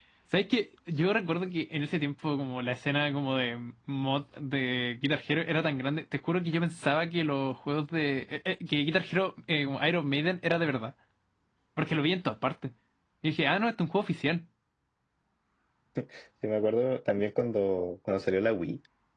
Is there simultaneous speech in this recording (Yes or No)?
No